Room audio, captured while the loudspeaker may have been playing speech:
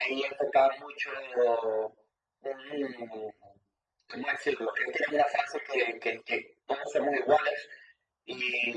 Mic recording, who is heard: echo only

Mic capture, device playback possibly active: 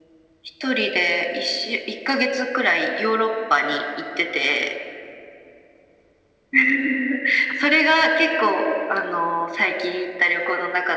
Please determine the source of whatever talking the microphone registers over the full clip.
echo only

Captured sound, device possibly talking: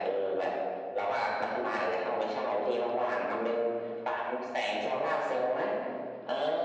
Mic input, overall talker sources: echo only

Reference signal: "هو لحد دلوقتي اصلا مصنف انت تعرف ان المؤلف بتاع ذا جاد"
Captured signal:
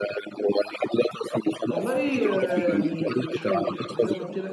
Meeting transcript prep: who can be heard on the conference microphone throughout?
both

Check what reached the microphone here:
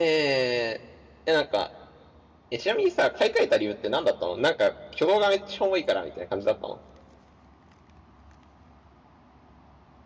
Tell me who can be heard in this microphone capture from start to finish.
user only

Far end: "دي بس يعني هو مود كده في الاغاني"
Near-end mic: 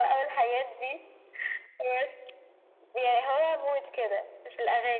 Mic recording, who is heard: echo only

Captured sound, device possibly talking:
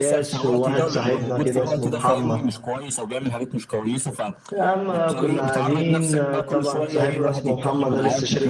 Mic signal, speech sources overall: both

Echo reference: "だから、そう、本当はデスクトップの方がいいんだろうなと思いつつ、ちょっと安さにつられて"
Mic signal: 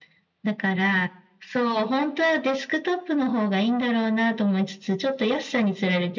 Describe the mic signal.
echo only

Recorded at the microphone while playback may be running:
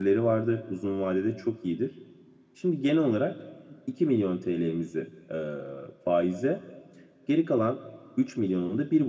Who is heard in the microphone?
user only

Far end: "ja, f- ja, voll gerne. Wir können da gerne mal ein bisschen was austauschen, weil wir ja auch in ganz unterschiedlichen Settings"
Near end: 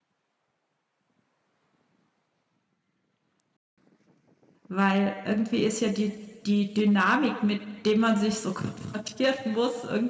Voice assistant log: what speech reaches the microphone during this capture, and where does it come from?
user only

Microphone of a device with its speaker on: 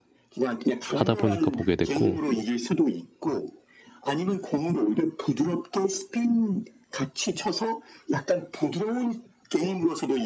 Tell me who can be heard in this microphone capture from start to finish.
both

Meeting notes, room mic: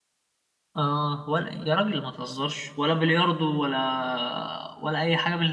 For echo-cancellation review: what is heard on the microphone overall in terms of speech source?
user only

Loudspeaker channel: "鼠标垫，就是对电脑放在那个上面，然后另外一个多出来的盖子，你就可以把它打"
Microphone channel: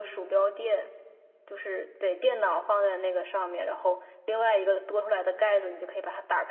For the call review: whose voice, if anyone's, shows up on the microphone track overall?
echo only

